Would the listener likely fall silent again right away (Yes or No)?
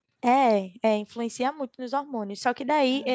Yes